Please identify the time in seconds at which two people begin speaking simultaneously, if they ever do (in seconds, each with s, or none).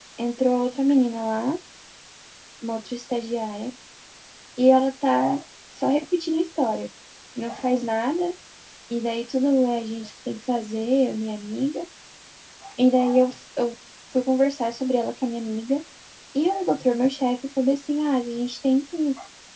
none